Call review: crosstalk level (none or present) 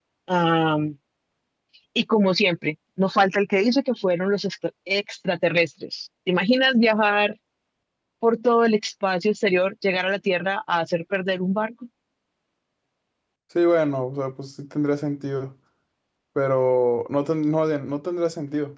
none